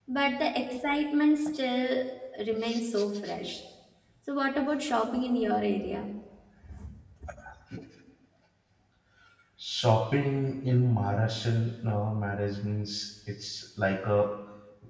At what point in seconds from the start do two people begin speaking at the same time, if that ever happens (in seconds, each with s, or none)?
none